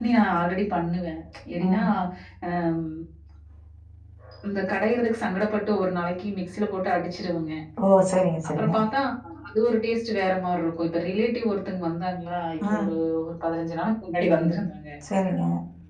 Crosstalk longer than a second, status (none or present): none